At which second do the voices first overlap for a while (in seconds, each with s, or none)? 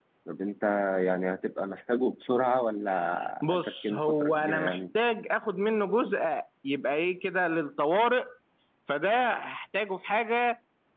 3.5 s